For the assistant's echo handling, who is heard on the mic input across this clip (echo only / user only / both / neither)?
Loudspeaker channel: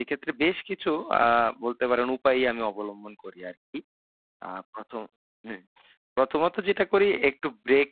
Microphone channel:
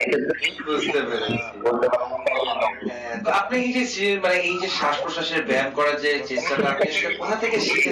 both